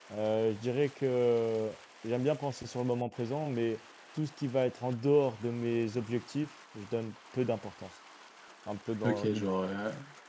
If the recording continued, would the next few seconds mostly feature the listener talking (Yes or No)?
Yes